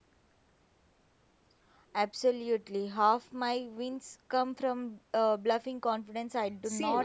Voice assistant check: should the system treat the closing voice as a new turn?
Yes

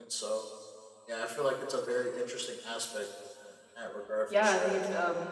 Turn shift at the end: Yes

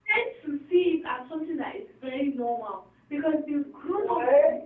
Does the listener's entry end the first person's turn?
No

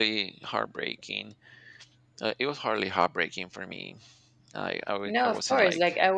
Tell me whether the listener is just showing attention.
No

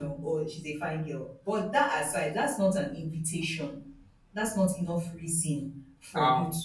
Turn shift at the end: Yes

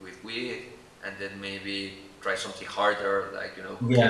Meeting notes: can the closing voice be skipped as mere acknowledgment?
No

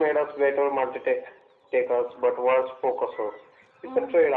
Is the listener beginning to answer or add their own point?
Yes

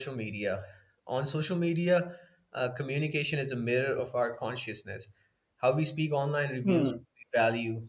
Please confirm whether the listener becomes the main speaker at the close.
No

